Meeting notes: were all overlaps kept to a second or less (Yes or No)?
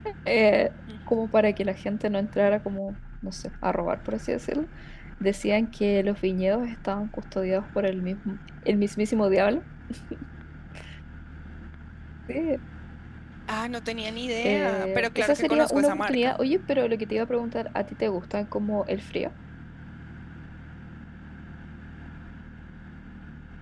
No